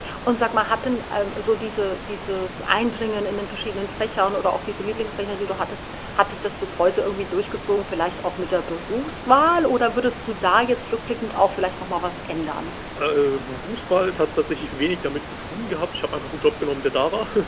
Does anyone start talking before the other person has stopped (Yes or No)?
No